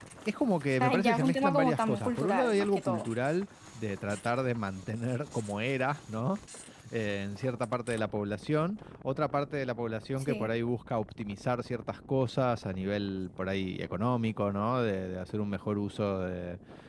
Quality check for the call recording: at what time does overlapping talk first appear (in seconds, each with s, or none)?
0.8 s